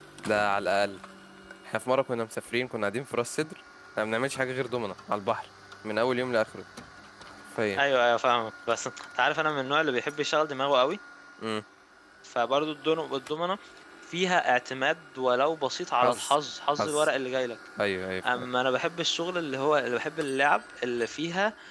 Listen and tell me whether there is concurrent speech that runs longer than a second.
No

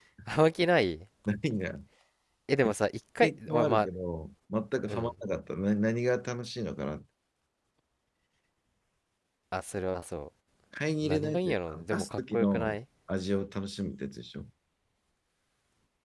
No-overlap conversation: No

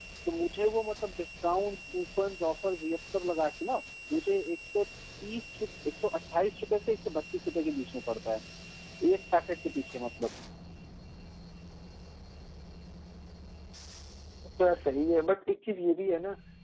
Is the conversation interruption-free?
Yes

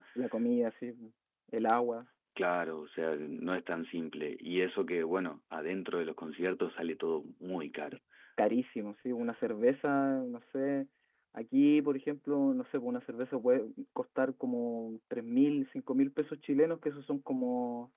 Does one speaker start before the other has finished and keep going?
No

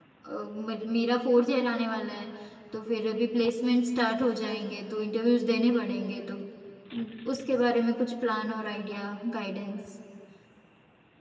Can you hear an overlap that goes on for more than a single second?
No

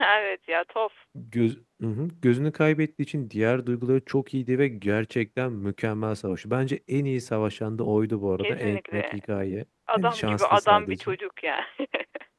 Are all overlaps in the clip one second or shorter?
No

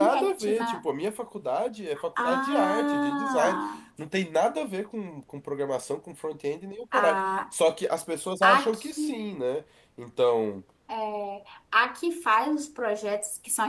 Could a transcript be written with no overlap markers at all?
No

